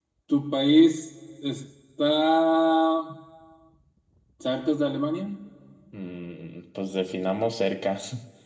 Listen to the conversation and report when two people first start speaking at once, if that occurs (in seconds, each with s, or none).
none